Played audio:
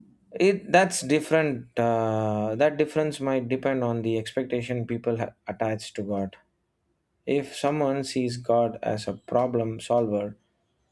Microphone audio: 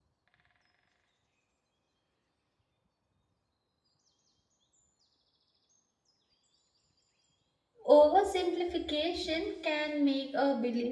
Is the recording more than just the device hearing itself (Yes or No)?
Yes